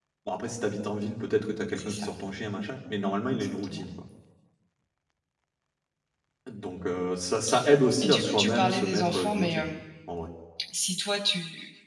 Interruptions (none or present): present